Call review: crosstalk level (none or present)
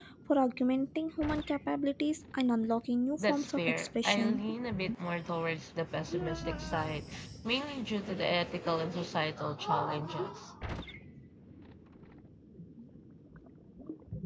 present